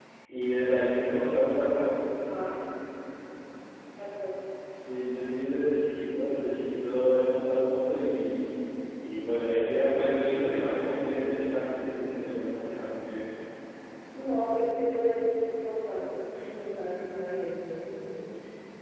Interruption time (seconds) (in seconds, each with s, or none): none